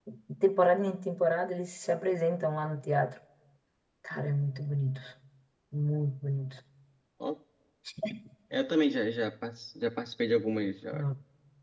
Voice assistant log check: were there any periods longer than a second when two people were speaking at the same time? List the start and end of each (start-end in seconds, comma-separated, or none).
none